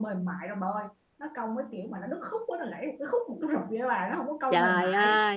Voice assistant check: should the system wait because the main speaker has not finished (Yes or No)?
No